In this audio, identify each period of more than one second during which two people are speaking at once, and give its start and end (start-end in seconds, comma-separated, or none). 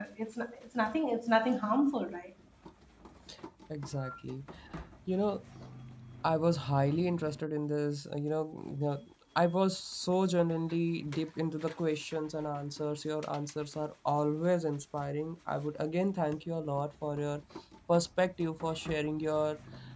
none